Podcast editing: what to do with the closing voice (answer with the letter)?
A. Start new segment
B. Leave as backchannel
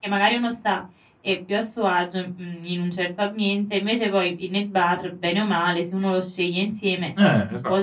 A